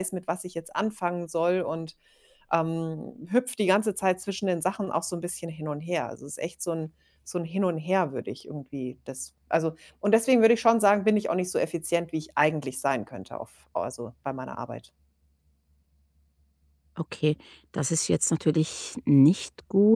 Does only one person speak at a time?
Yes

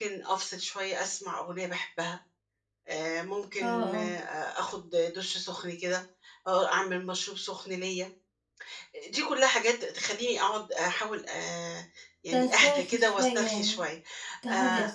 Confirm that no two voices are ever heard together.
No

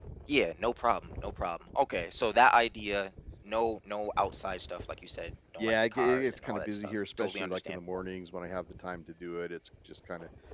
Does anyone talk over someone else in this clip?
Yes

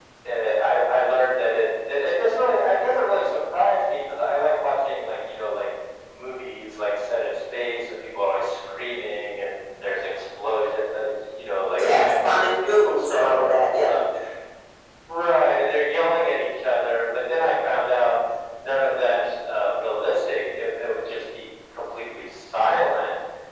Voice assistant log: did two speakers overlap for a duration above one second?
Yes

